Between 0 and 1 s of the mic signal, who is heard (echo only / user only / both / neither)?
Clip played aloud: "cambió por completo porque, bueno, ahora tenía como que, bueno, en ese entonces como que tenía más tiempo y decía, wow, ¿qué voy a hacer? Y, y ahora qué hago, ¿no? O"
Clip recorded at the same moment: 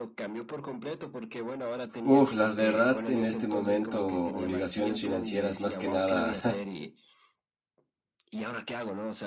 echo only